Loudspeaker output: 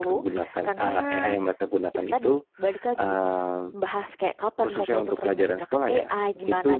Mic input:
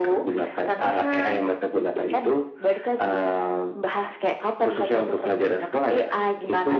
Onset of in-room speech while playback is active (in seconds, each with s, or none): none